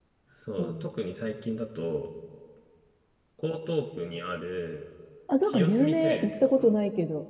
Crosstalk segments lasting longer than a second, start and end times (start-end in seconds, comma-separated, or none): 5.4-6.8